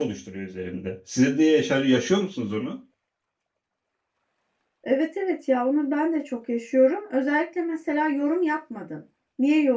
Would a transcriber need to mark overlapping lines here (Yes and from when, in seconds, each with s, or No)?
No